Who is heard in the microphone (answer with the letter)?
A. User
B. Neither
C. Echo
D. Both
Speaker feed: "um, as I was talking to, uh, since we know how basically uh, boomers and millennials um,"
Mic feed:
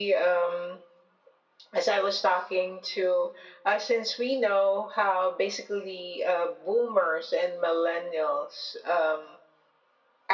C